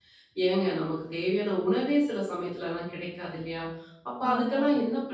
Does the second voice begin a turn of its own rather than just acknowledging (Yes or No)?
No